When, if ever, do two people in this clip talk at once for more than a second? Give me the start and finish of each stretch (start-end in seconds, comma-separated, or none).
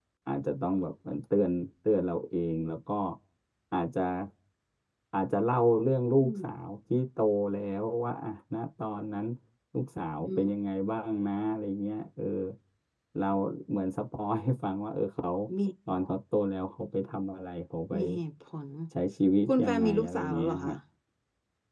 19.5-20.7